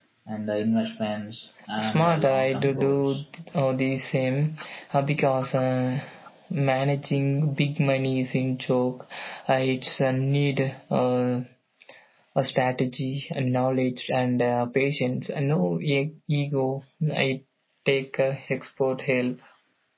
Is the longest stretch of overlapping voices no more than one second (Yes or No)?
No